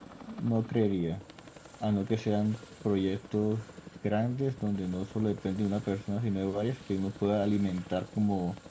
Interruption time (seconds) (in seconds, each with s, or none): none